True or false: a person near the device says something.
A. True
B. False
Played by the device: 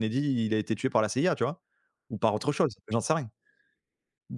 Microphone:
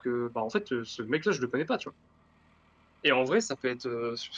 A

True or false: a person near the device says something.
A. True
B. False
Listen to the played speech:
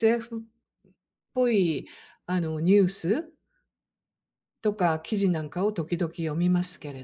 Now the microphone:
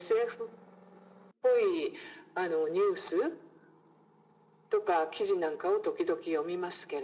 B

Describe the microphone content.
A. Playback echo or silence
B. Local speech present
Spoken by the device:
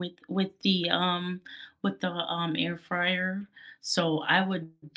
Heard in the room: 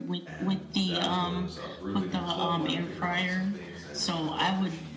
B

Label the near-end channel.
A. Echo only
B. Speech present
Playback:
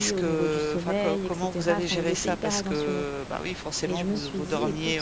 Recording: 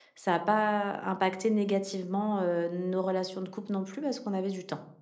B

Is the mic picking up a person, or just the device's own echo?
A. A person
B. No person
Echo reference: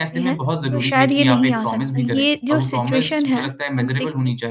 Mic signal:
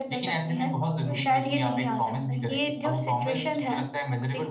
B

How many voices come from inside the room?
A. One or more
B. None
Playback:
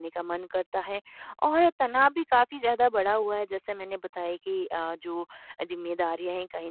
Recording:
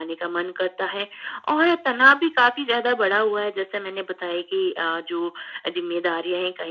B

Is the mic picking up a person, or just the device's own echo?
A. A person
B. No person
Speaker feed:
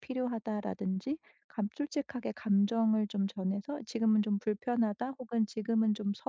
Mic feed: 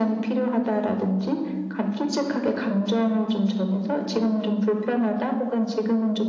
B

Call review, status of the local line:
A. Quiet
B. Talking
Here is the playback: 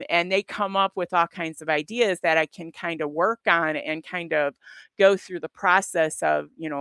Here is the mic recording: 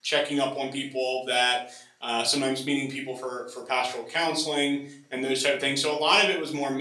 B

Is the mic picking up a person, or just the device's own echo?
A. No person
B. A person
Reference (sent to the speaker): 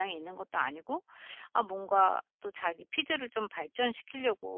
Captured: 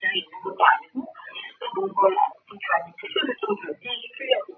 A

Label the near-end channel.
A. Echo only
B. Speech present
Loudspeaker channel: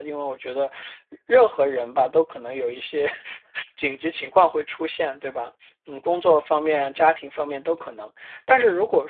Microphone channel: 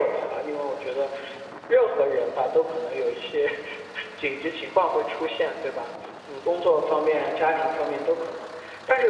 A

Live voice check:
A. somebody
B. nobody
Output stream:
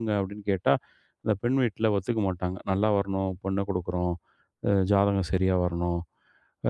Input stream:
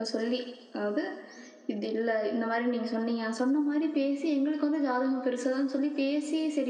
A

